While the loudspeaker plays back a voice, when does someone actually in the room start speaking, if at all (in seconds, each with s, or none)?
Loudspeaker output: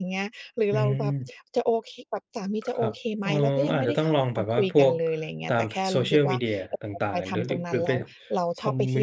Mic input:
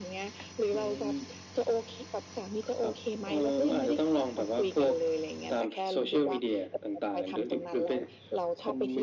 none